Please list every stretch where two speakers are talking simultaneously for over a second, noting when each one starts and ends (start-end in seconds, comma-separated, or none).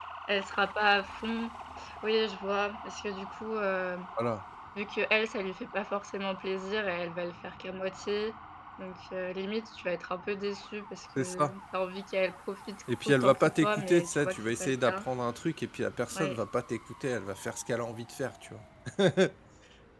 13.1-15.0